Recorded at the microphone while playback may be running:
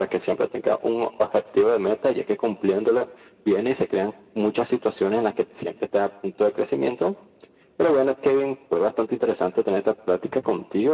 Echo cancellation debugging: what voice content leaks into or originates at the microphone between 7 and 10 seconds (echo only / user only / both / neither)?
echo only